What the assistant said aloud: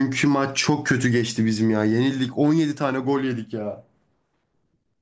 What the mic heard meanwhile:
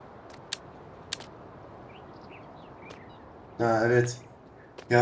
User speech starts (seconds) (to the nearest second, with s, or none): 4 s